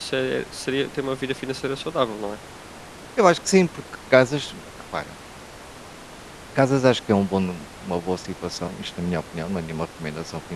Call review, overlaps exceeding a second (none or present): none